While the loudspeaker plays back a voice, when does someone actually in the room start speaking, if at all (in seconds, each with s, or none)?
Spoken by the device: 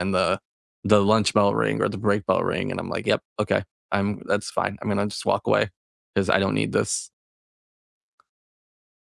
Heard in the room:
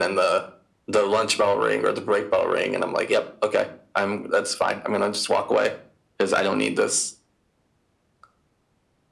none